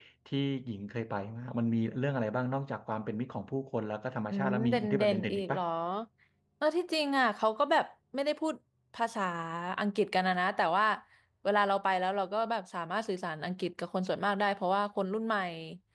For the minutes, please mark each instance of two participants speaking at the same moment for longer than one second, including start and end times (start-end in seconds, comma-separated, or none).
4.3-5.6